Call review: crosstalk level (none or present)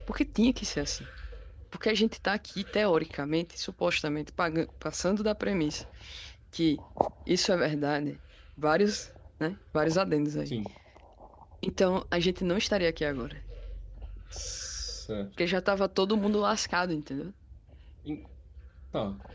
none